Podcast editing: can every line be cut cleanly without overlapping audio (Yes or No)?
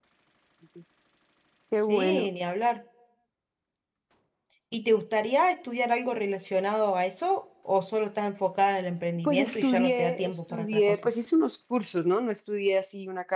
No